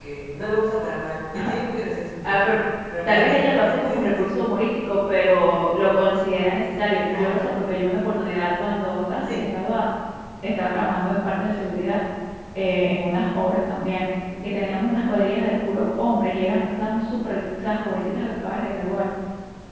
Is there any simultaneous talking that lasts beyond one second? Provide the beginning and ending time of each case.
3.0-4.3

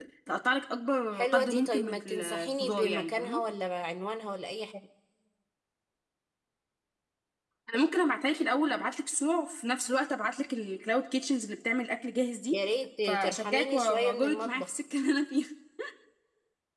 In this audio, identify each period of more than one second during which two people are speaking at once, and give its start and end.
1.1-3.4, 13.0-14.7

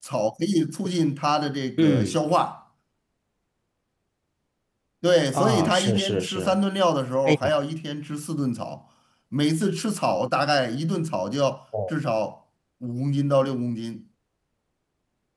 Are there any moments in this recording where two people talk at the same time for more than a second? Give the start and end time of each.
5.3-6.5

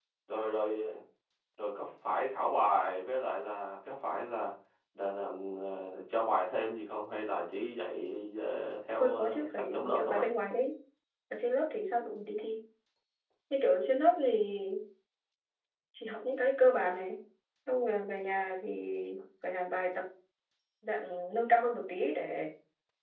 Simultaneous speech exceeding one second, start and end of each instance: 9.0-10.3

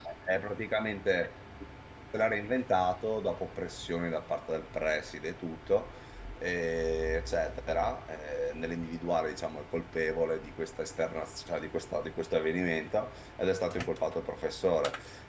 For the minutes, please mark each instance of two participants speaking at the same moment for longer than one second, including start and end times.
none

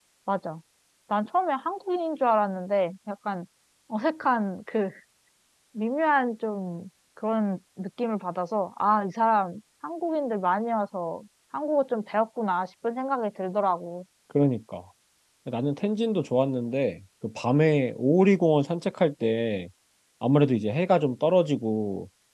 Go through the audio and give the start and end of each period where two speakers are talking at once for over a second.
none

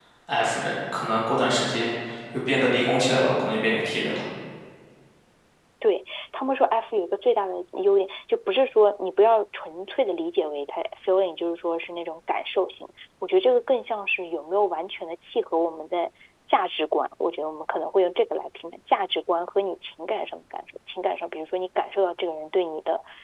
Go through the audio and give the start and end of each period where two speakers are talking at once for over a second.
none

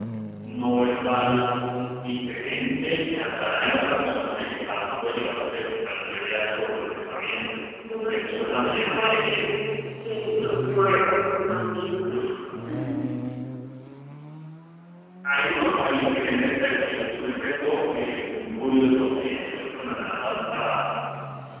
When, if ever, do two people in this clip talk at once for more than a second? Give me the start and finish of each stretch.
8.1-9.5

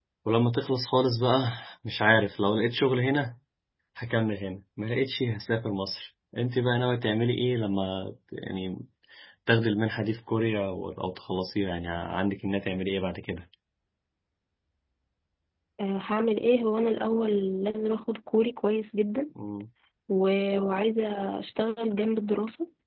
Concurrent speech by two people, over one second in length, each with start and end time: none

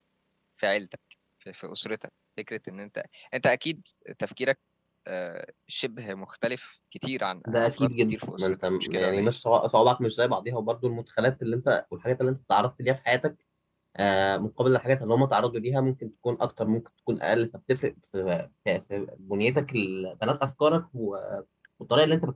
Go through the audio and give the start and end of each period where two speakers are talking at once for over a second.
7.5-9.3

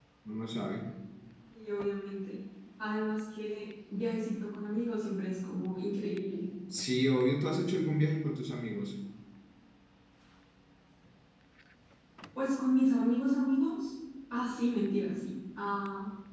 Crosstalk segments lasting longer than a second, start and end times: none

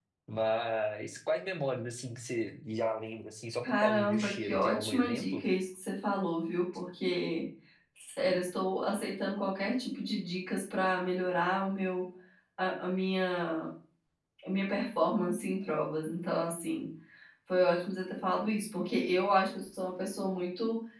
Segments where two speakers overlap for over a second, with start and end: 3.6-5.4

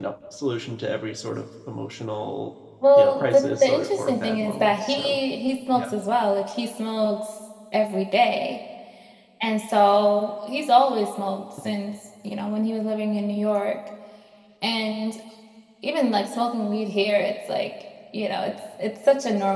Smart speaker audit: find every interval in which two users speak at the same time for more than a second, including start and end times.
3.0-5.2

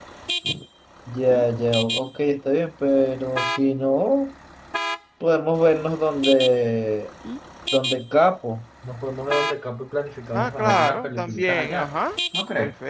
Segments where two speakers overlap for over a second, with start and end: 10.3-11.9

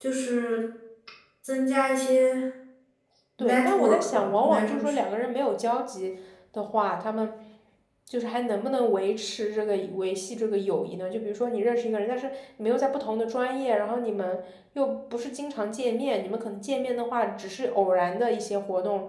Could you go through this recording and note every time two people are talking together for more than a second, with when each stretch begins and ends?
3.4-4.9

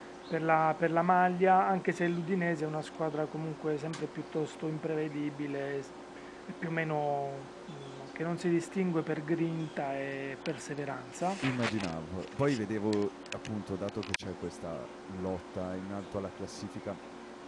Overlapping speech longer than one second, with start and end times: none

